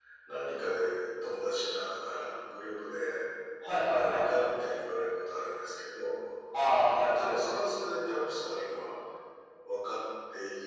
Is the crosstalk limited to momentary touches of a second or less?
Yes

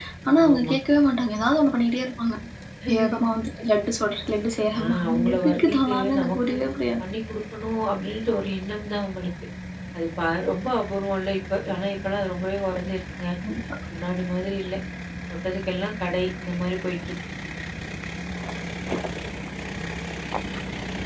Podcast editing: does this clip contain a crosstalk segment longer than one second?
Yes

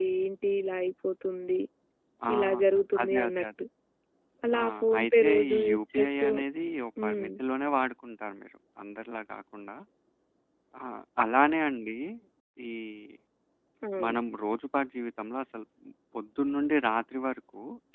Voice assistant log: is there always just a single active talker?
No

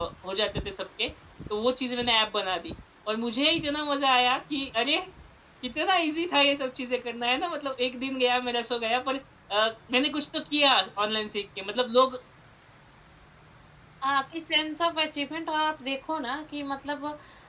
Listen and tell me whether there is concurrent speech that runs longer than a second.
No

